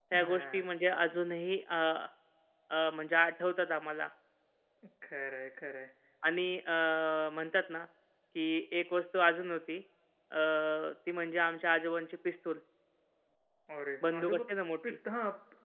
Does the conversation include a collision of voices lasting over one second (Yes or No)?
No